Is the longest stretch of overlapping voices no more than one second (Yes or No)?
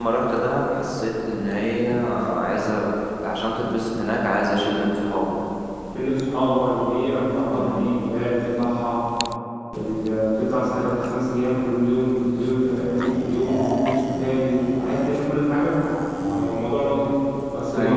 Yes